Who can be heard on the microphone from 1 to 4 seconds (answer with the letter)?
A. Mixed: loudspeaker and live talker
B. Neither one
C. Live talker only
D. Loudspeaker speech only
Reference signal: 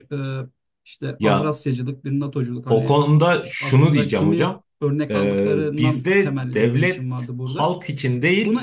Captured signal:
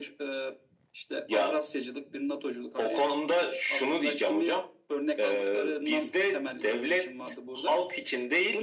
D